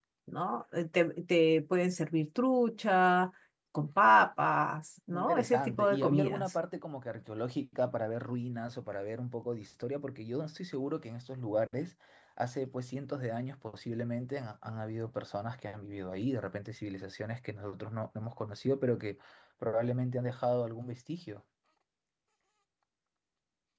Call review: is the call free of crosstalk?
No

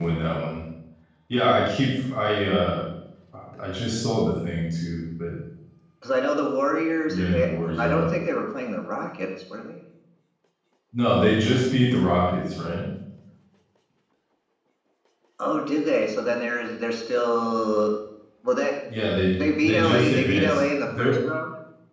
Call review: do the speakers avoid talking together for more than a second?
No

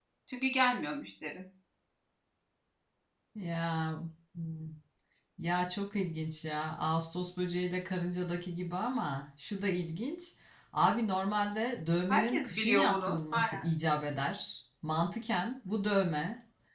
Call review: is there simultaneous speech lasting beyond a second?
Yes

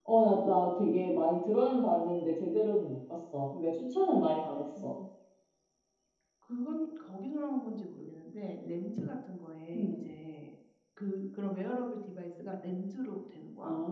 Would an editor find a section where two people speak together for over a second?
No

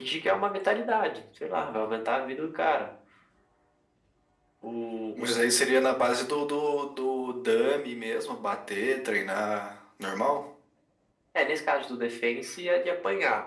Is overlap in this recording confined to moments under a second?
Yes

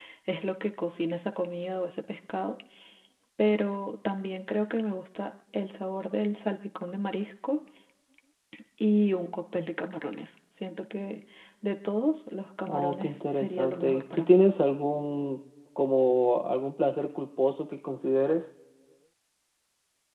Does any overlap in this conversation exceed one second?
Yes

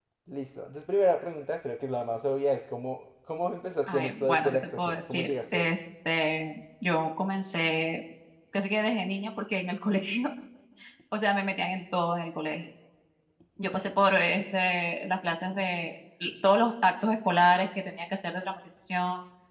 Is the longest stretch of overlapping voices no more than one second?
No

